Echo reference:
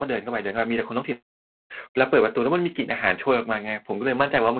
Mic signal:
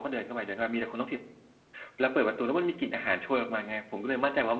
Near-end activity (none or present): none